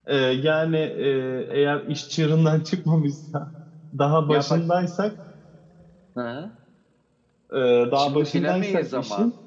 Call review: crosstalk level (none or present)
present